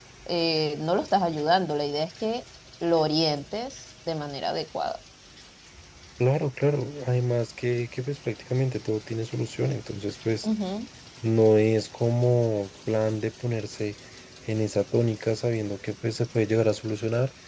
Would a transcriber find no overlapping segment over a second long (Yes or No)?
Yes